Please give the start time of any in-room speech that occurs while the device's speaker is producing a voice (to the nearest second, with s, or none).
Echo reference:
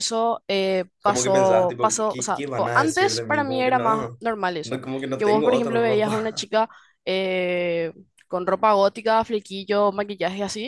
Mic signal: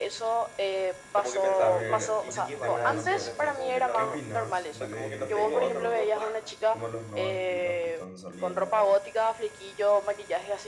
2 s